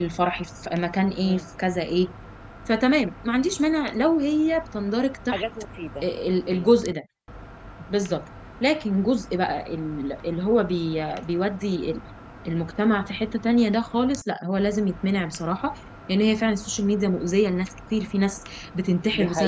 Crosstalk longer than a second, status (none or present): none